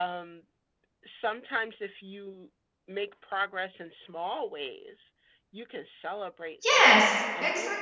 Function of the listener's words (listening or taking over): taking over